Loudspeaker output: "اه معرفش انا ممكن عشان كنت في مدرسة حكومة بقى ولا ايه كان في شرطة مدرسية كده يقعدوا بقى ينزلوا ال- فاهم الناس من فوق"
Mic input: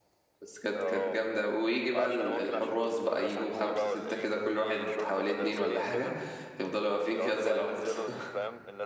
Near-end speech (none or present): present